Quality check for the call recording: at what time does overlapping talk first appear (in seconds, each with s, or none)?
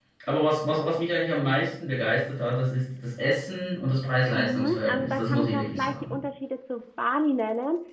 4.3 s